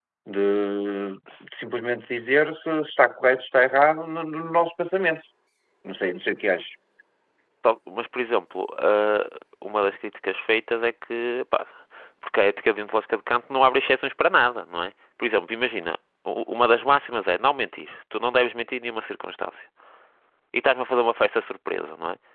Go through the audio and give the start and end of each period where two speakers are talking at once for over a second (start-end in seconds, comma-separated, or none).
none